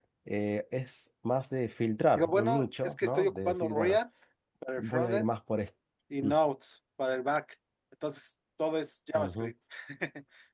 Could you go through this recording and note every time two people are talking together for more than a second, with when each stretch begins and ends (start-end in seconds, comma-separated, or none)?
2.1-4.0